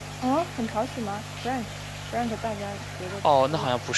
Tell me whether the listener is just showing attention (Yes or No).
No